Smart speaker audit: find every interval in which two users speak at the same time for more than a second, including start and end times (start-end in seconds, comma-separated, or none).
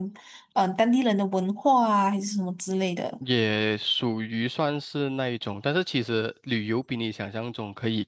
none